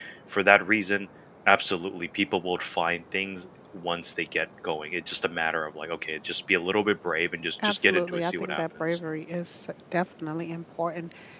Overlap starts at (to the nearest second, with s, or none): 8 s